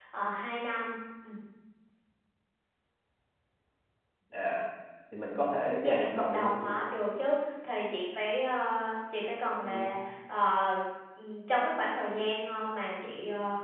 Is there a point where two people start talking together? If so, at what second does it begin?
5.6 s

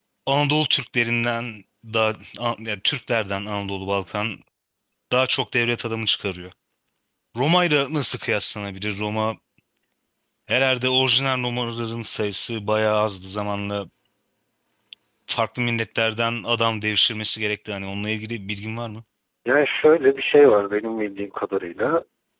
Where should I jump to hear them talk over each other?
none

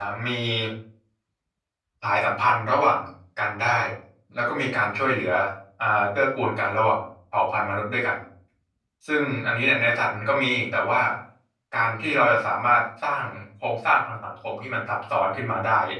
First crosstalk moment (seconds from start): none

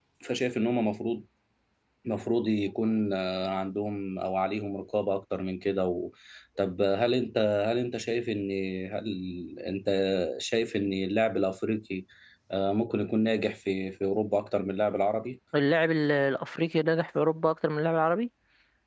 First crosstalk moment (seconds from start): none

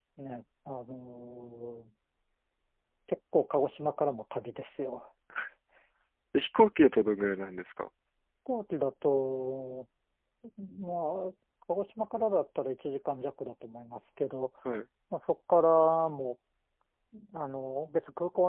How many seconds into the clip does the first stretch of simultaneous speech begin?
none

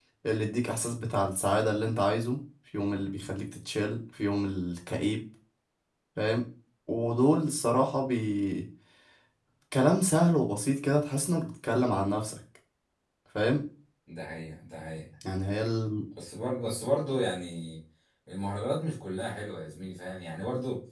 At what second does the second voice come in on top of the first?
none

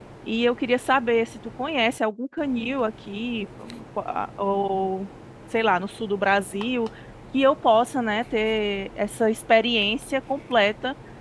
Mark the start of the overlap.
none

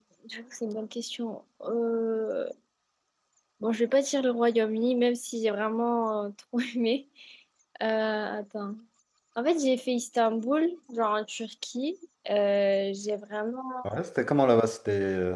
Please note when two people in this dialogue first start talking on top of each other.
none

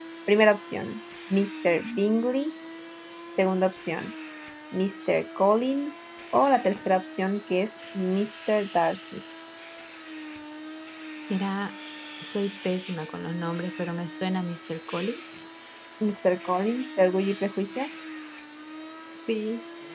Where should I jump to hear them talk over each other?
none

